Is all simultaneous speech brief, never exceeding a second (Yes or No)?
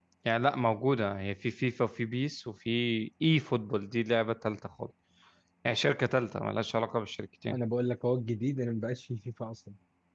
Yes